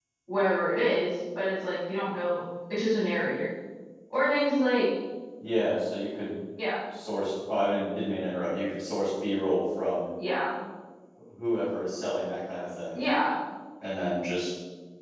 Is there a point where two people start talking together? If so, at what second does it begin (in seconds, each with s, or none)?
none